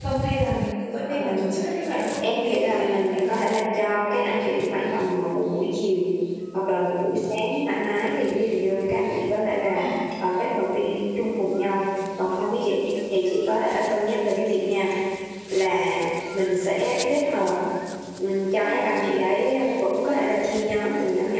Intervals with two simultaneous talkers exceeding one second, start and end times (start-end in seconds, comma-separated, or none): 2.2-3.5